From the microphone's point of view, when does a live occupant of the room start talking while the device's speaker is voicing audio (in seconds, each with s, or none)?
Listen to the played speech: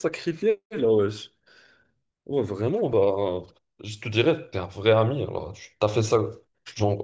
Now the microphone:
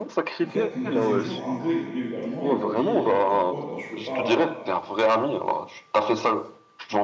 0.4 s